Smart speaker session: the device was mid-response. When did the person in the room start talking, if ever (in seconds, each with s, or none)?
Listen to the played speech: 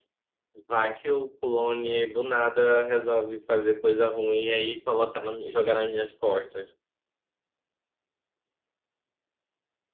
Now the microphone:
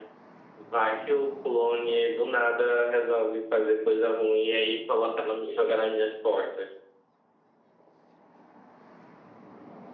none